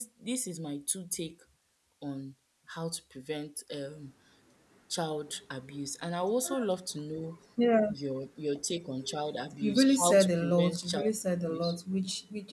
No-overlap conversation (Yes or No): No